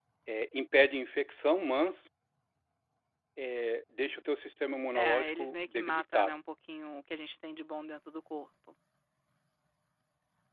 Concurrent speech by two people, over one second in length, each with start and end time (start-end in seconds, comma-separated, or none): 4.9-6.3